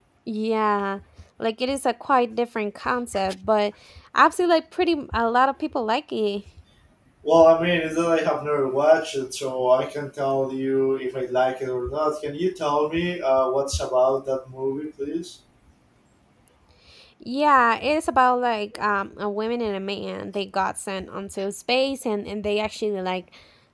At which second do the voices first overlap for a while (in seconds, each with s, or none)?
none